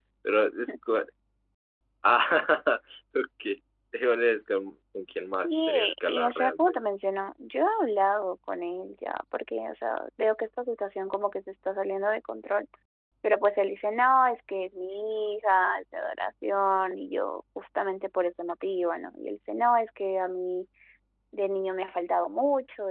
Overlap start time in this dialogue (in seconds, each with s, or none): 5.4 s